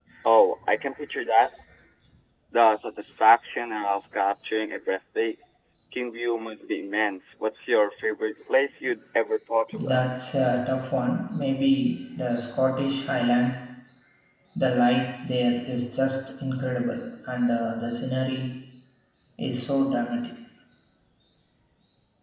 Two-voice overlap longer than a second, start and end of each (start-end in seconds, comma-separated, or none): none